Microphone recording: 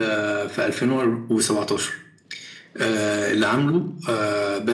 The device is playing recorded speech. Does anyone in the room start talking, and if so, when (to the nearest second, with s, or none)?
none